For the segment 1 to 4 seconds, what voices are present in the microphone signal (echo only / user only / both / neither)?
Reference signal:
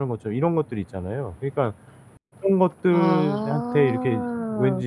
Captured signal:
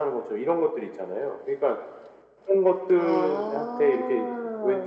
echo only